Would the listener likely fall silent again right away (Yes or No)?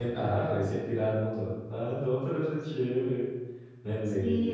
No